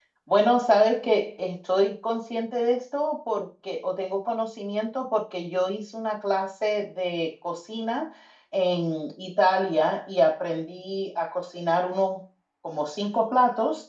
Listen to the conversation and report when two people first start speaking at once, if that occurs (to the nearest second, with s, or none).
none